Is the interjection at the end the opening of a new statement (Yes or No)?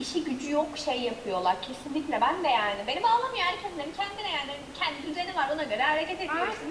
Yes